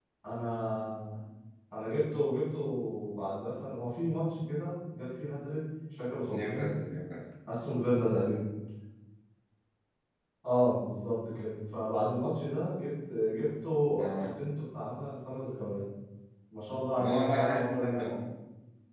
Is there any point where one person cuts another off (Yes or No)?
Yes